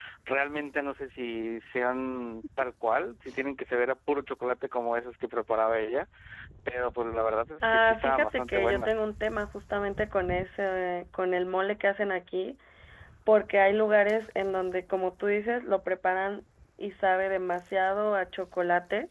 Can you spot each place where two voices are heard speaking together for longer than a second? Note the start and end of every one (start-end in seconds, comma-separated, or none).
7.7-8.9